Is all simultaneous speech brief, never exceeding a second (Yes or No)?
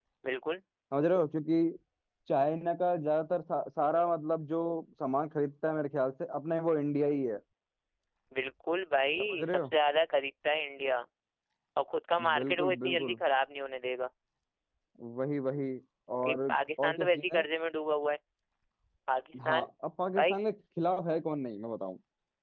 No